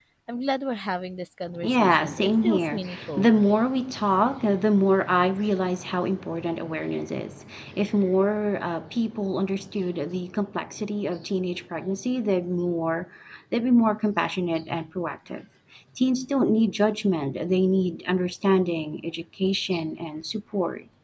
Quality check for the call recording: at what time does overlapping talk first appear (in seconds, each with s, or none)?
1.6 s